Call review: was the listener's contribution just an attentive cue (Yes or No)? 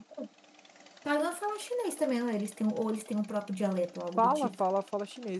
No